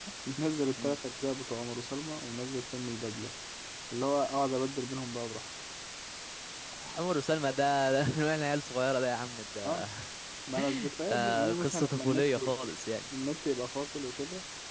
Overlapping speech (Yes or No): Yes